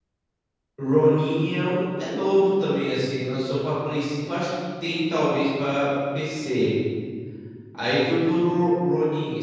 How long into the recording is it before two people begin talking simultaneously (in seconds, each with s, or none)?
none